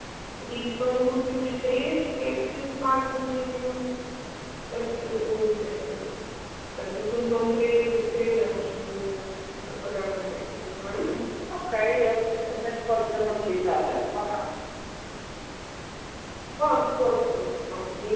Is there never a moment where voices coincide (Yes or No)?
Yes